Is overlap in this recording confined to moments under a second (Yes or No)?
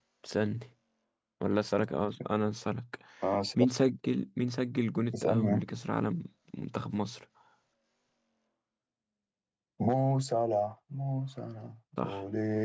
Yes